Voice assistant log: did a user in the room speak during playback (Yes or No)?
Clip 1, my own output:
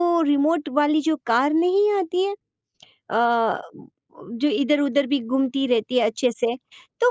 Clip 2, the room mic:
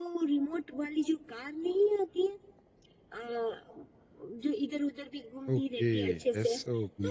Yes